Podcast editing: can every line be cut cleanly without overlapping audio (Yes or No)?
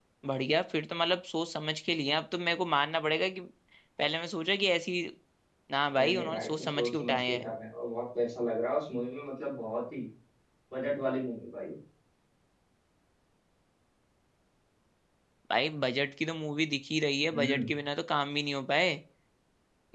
No